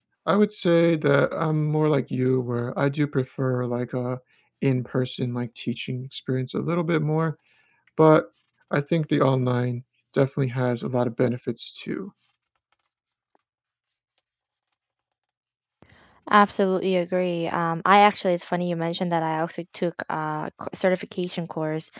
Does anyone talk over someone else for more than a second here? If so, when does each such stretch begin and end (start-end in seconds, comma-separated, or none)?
none